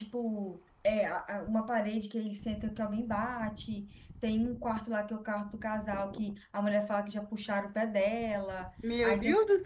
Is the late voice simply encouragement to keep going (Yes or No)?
No